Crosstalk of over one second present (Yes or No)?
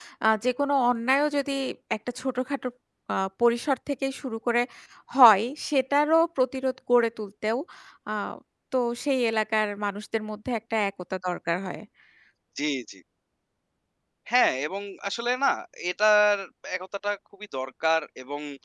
No